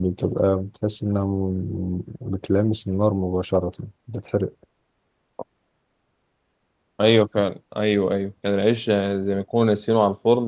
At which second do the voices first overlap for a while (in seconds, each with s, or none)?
none